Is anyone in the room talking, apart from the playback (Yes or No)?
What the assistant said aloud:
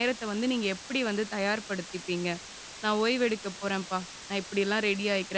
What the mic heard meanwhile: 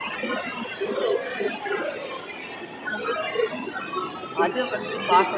Yes